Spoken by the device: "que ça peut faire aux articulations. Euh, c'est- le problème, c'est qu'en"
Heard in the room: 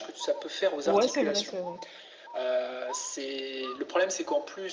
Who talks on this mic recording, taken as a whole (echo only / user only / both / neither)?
both